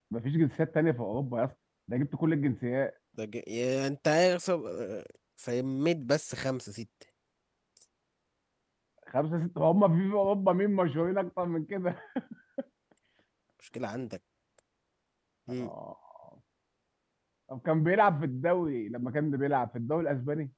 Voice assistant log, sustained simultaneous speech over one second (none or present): none